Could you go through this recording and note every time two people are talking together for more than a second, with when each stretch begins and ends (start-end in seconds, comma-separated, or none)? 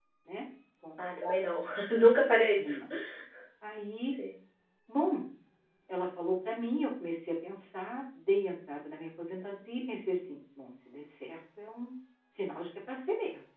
none